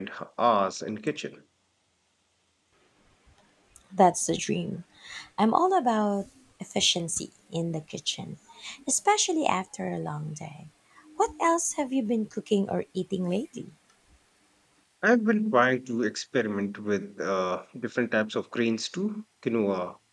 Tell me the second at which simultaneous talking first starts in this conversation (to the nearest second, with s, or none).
none